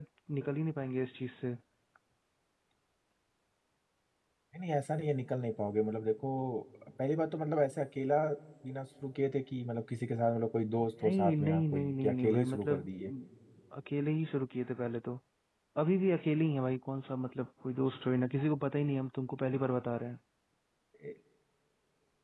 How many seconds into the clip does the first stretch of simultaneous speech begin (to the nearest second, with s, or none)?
11 s